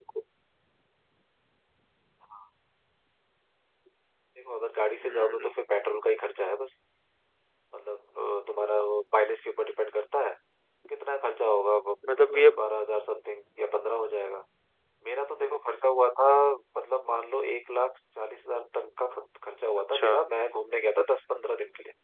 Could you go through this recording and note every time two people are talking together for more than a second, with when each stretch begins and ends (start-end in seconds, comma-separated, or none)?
none